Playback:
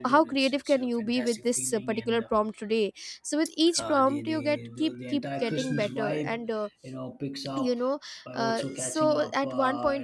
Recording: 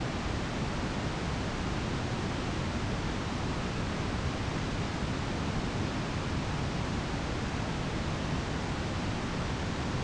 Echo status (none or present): none